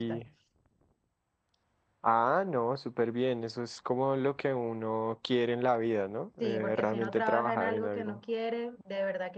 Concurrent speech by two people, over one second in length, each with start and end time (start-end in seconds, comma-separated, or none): 6.4-8.2